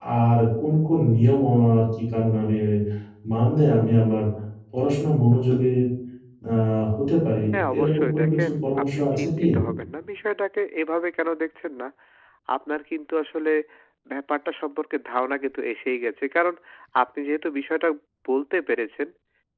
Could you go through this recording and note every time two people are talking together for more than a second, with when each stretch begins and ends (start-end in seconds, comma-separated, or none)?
7.5-9.4